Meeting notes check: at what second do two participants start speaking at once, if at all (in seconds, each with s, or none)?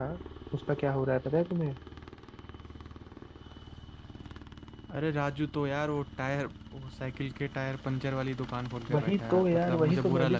8.9 s